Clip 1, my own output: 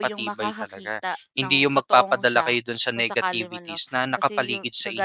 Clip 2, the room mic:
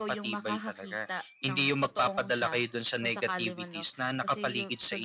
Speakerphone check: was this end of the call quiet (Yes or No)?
Yes